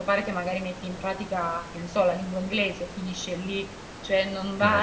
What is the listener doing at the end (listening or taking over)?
listening